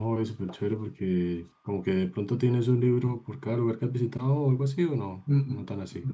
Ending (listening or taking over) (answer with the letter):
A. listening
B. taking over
B